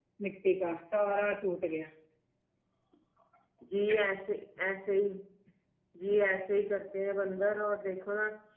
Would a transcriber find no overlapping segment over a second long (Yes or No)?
Yes